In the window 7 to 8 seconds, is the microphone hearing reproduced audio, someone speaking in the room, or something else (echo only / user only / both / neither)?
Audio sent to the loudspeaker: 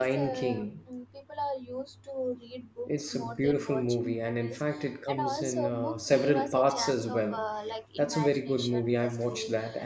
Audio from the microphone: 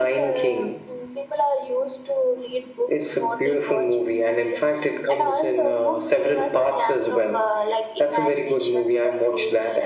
echo only